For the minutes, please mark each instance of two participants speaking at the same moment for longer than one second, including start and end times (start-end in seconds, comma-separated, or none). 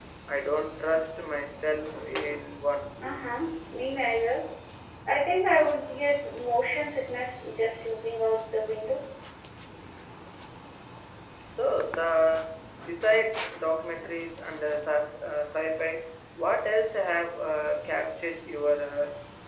none